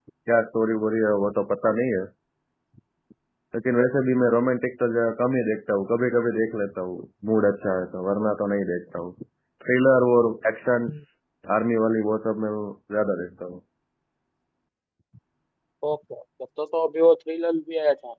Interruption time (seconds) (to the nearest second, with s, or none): none